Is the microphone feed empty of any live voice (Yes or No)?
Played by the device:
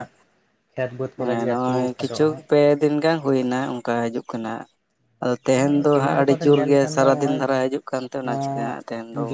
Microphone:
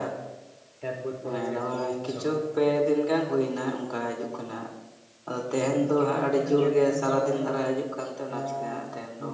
Yes